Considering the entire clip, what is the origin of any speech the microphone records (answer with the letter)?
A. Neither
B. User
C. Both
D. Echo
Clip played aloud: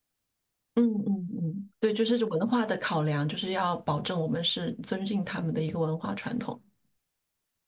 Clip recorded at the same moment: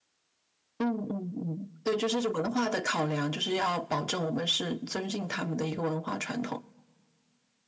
D